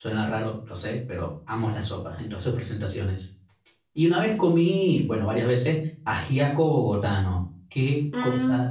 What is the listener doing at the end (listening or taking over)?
listening